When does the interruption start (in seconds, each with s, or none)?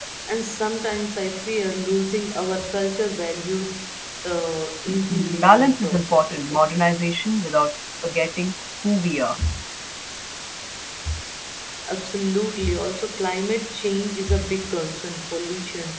4.9 s